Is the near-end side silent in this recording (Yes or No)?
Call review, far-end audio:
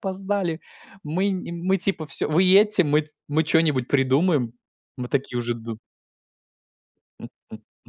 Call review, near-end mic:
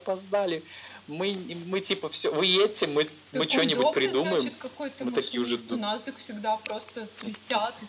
No